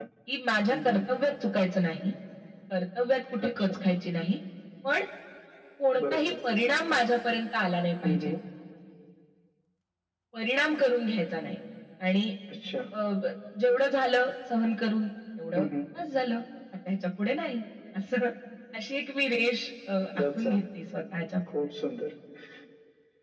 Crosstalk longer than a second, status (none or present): none